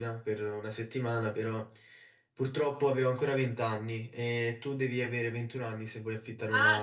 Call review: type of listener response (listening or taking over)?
taking over